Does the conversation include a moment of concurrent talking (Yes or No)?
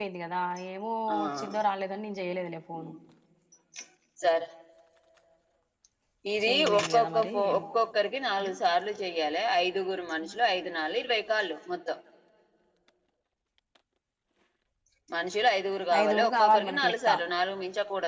Yes